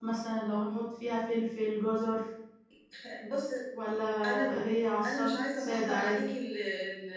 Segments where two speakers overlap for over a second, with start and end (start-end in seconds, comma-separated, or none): 5.0-6.3